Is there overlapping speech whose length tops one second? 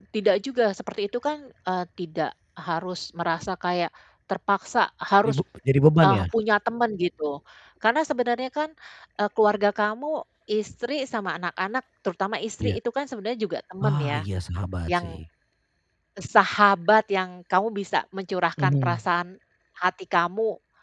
No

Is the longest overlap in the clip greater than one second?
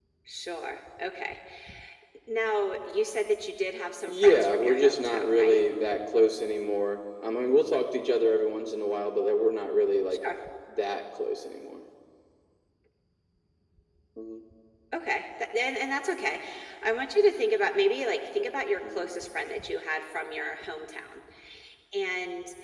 Yes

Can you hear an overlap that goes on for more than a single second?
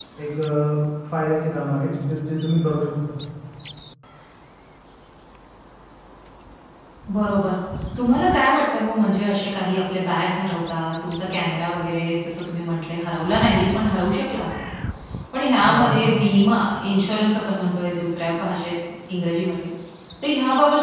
No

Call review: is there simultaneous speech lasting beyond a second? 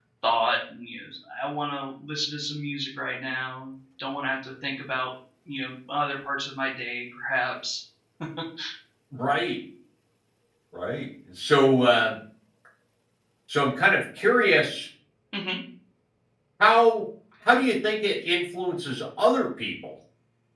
No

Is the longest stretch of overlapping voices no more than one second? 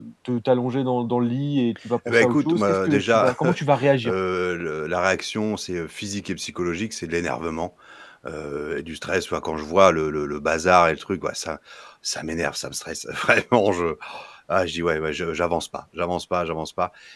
No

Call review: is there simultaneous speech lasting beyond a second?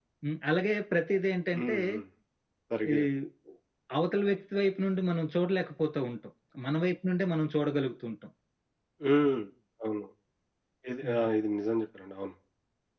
No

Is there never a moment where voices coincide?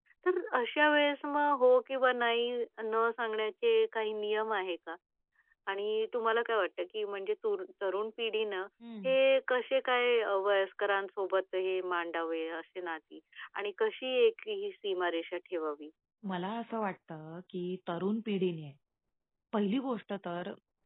Yes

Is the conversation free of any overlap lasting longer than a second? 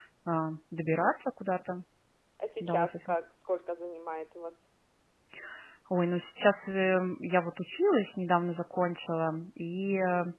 Yes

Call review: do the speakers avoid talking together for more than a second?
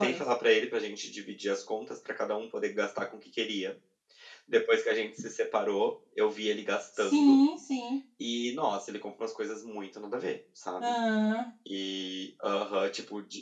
Yes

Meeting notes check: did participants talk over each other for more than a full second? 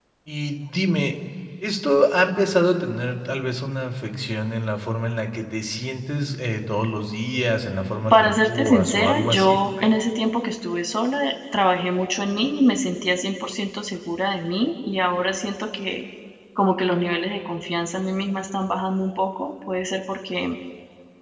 Yes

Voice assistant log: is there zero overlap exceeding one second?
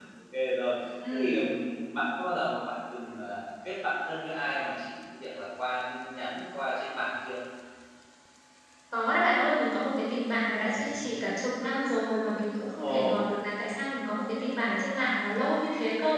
Yes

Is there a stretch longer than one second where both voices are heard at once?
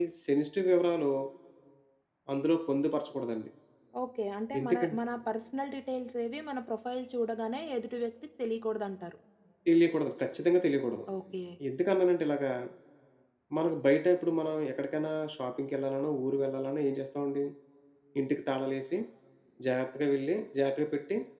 No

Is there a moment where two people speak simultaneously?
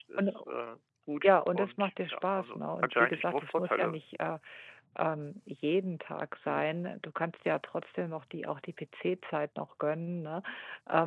Yes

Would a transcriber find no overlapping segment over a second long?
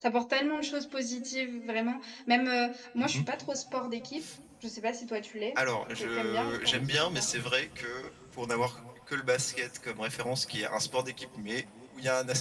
No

